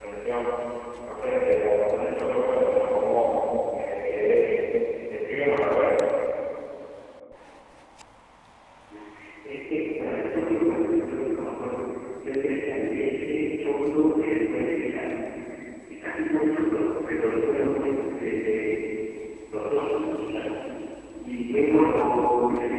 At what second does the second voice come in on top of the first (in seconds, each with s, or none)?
none